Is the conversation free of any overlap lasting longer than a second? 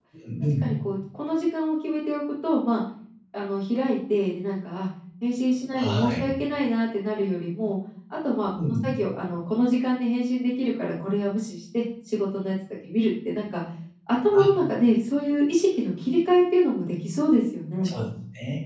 Yes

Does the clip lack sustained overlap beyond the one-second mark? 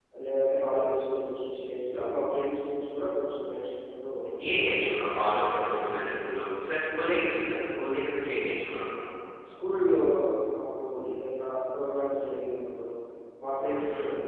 Yes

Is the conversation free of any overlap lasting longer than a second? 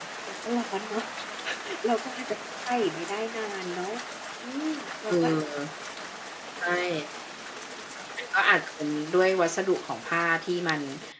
Yes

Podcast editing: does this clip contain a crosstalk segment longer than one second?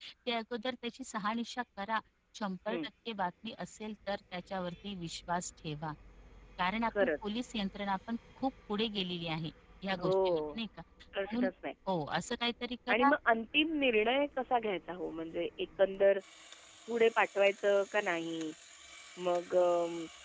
No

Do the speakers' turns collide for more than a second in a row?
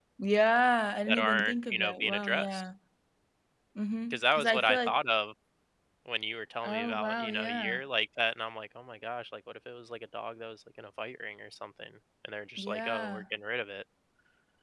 Yes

